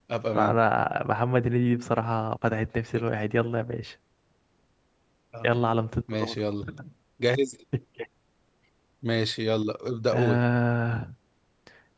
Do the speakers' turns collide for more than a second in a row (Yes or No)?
No